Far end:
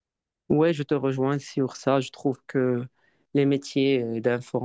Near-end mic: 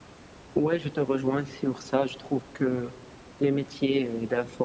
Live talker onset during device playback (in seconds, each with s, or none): none